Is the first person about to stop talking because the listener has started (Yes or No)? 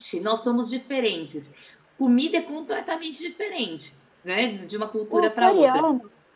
Yes